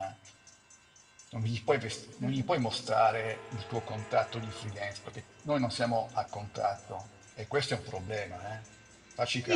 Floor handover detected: Yes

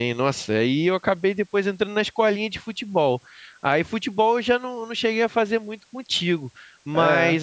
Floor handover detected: No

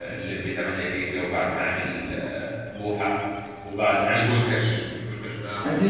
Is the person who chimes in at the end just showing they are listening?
No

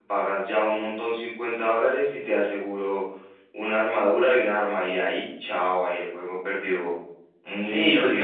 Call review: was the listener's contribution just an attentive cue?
No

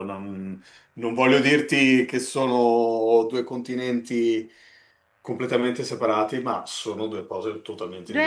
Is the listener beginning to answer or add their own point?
Yes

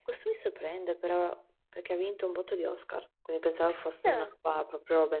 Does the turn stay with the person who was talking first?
Yes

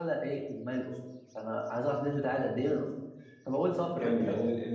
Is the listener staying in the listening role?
No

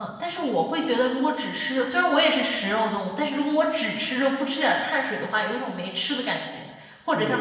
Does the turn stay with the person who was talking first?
No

